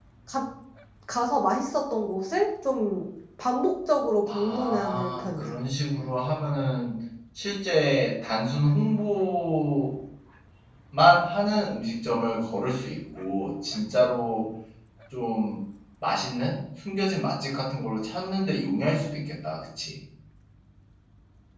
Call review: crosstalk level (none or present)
present